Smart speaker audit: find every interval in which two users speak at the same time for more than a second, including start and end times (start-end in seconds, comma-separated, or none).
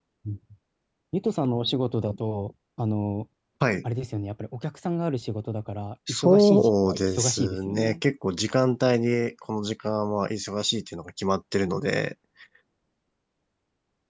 6.1-8.0